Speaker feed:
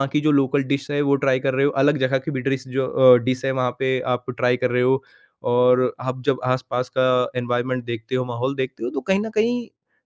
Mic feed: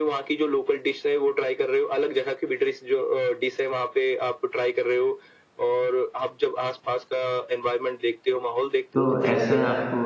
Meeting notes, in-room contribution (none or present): present